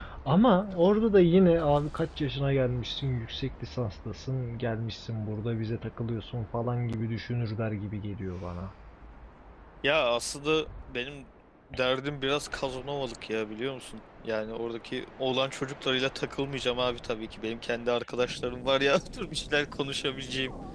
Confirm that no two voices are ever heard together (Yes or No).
Yes